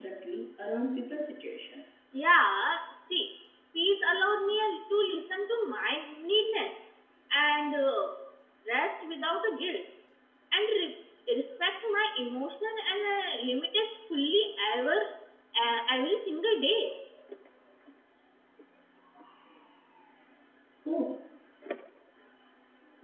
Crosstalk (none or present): none